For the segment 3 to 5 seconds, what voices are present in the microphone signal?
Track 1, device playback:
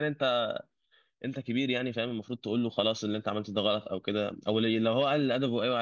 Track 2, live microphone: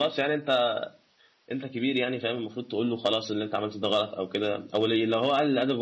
echo only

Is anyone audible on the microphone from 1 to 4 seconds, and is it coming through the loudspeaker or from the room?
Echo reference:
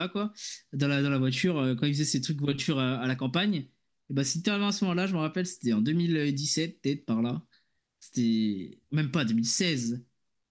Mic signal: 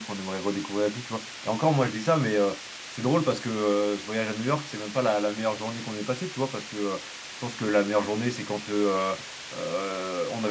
user only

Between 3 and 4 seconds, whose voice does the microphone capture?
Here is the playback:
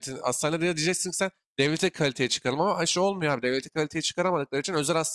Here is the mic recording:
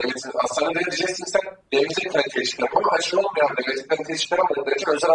echo only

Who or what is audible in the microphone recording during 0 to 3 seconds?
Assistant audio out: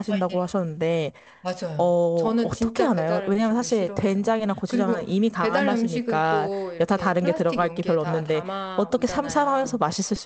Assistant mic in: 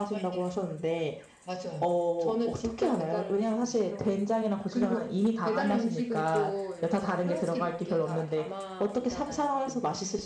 echo only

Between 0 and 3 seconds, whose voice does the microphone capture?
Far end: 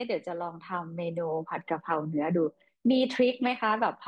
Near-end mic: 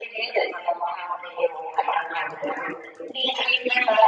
echo only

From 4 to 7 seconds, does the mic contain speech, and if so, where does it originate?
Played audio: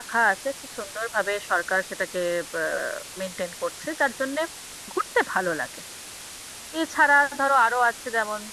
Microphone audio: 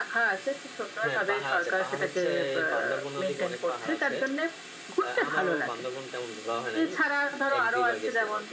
both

